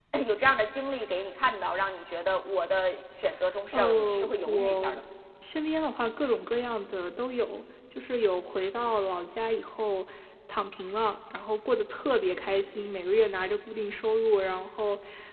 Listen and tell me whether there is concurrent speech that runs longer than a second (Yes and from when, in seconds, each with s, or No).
Yes, from 3.7 s